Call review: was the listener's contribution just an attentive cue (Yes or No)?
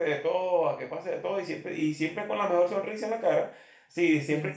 Yes